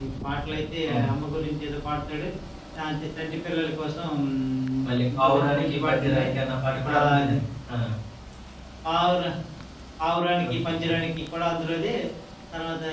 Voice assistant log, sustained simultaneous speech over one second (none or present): present